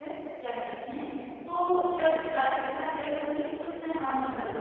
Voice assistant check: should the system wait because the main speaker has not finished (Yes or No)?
Yes